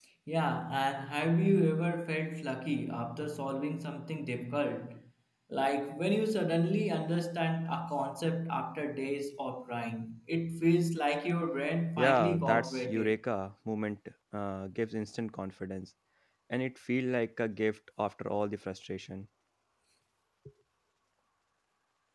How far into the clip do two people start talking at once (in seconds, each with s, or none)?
12.0 s